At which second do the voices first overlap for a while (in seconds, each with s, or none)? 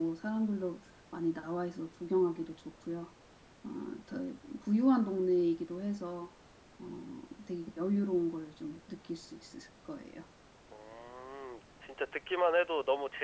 none